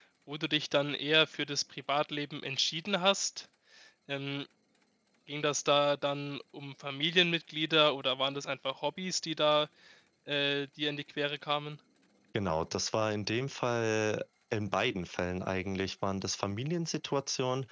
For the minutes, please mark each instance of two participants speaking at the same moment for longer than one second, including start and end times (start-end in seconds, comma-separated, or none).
none